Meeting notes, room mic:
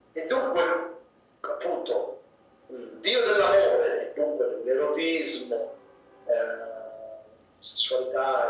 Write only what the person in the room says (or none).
none